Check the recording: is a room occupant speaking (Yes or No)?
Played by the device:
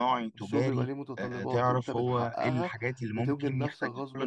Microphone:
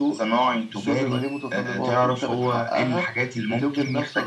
No